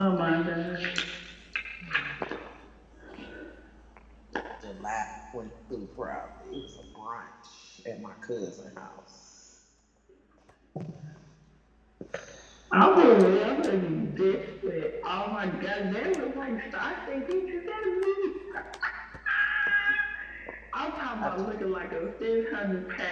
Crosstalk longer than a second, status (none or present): none